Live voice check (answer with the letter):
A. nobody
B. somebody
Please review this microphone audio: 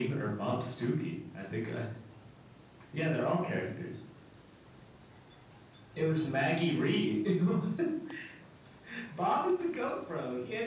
A